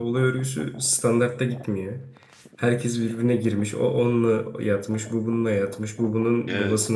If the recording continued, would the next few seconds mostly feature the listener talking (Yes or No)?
No